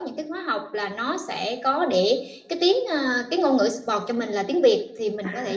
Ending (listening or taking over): listening